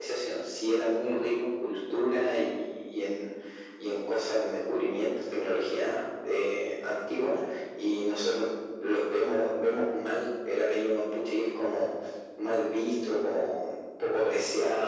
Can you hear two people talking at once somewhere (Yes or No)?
No